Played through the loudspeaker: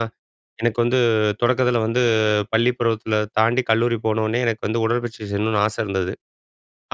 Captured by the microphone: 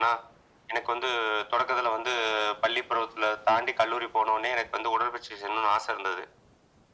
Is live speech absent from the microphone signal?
Yes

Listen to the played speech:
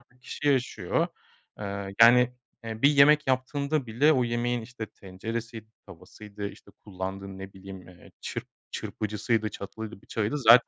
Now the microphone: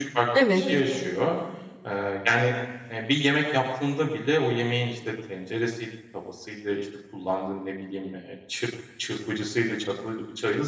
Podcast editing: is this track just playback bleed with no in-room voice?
No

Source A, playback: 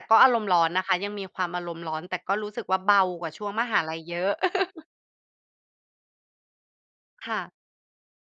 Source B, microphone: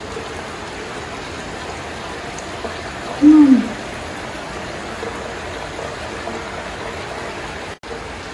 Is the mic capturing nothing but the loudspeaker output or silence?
No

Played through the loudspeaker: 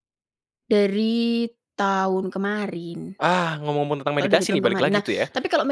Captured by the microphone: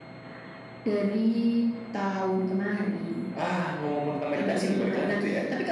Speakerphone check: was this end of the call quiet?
Yes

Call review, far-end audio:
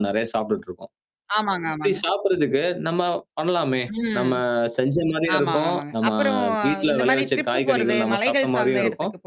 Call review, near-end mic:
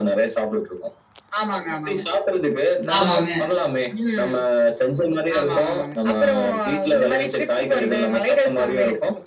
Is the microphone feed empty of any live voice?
No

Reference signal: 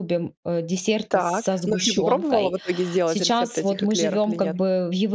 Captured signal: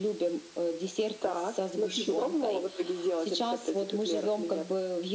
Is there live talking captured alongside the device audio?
No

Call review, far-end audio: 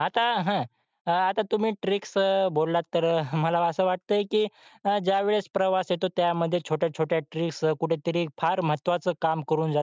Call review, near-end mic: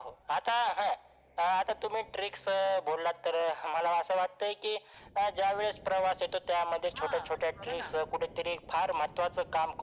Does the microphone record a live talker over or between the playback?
Yes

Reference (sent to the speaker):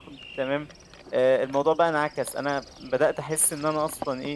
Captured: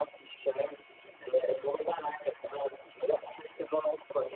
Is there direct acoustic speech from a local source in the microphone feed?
No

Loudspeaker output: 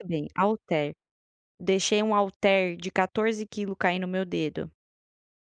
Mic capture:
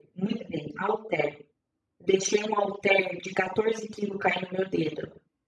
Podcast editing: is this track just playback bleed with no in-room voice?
Yes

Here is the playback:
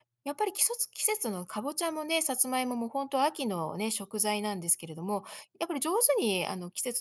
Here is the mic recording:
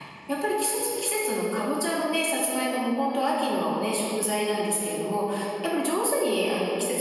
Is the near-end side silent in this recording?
Yes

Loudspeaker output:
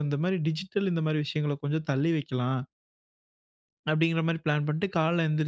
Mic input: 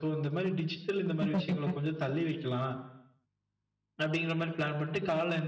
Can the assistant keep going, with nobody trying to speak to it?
No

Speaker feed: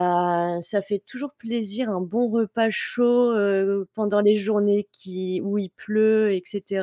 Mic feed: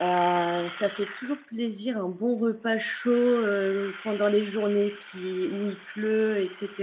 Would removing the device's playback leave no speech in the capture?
Yes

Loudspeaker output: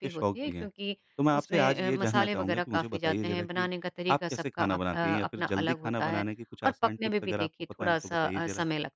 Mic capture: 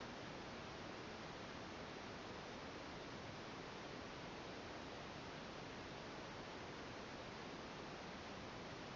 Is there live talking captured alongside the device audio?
No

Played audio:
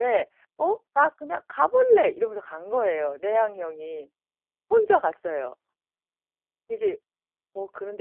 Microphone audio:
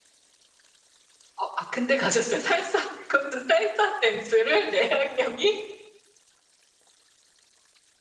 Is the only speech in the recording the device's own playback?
No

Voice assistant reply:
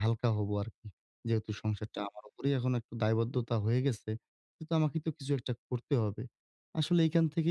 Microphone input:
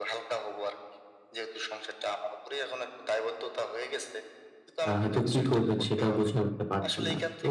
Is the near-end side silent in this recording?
No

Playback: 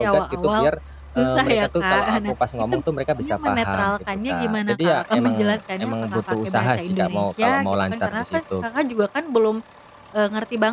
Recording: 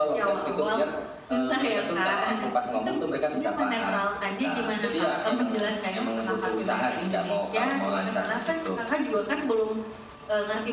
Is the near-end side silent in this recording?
Yes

